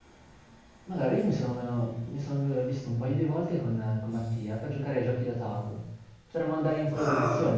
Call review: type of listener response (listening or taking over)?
listening